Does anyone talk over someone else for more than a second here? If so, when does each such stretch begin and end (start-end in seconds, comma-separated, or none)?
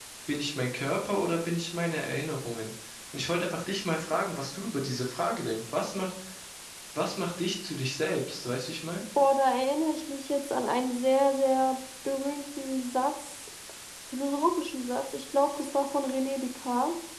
none